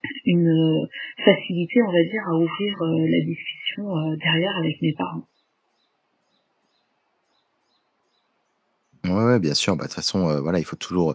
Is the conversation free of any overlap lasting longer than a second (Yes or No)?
Yes